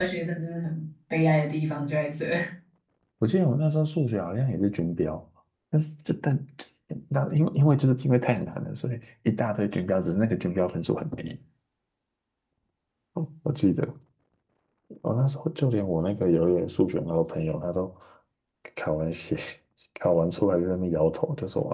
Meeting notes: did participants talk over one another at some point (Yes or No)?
No